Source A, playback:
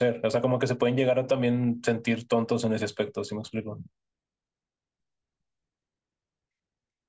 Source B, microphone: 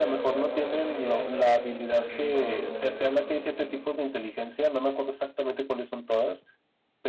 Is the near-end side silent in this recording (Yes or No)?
No